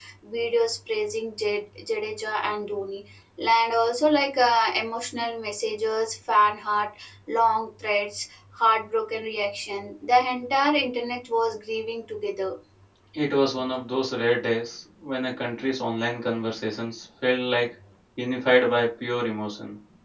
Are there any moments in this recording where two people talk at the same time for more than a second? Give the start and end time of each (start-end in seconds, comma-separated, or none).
none